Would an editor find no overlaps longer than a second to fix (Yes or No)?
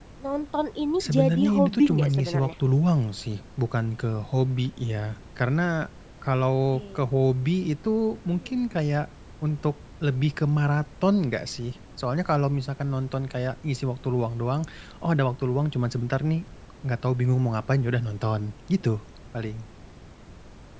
No